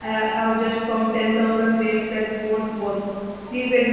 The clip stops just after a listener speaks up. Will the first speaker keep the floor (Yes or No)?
Yes